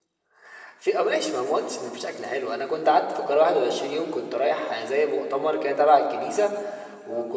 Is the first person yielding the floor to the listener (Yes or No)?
No